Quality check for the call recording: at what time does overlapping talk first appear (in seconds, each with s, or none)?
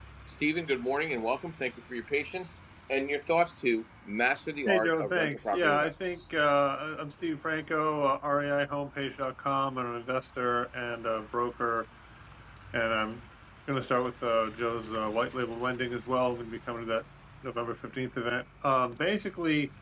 4.7 s